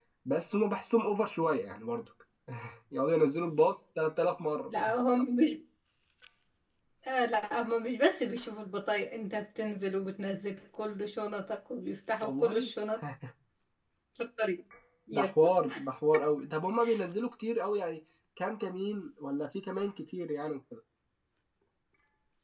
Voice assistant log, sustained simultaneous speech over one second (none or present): none